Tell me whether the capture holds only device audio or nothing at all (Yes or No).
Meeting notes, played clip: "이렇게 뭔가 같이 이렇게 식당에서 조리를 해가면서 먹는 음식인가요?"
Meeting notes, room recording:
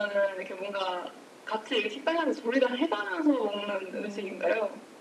No